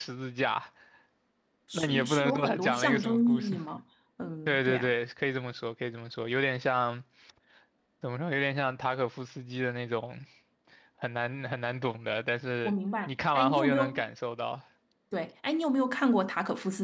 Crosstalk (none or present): present